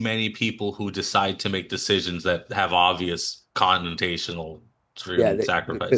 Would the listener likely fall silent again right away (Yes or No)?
No